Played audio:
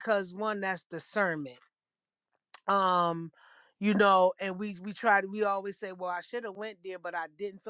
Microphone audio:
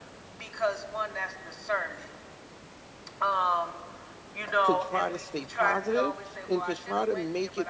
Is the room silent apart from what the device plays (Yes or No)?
No